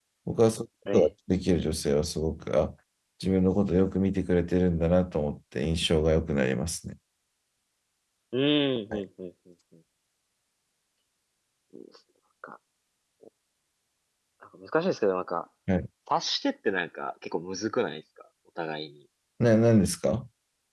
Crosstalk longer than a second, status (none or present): none